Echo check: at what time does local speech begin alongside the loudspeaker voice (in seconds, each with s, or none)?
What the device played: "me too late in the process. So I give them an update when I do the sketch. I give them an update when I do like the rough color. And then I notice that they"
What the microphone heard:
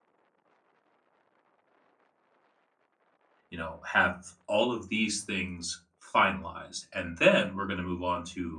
3.5 s